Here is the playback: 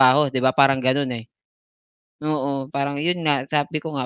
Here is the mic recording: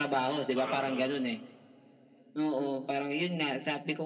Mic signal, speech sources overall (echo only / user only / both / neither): both